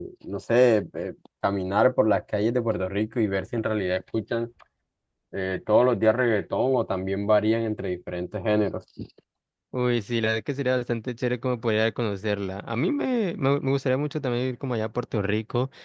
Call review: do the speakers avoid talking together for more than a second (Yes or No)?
Yes